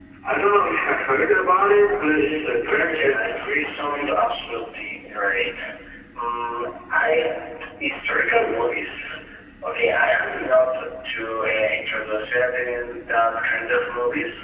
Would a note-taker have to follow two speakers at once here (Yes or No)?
Yes